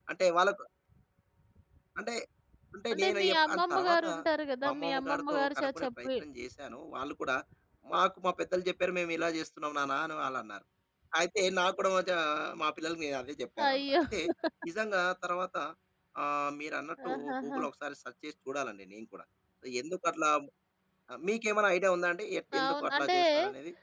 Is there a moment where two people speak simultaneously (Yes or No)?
Yes